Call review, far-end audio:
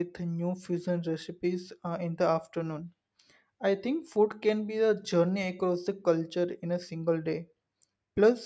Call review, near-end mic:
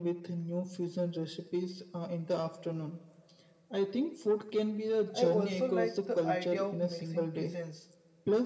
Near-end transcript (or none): I also like the idea of mixing cuisines,